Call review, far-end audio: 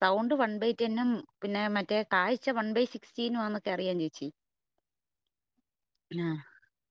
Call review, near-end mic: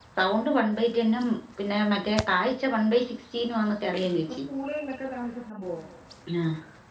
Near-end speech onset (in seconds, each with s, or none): 4.0 s